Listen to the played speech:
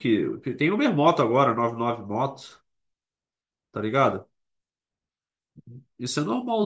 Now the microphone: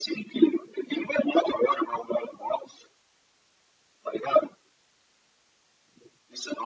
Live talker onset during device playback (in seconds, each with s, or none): none